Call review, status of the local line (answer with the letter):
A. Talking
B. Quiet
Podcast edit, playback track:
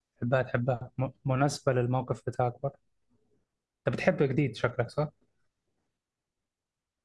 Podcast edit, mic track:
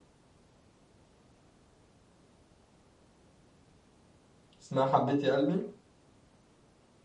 A